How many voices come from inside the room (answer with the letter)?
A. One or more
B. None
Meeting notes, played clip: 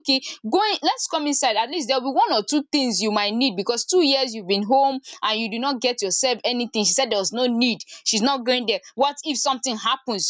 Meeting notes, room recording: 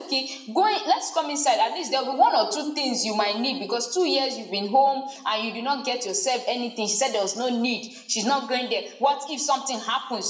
B